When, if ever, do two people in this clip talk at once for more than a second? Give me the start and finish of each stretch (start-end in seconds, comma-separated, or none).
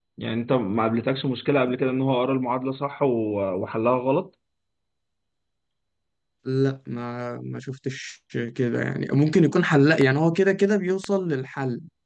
none